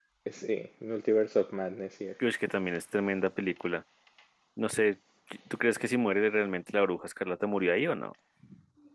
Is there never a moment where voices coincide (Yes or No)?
Yes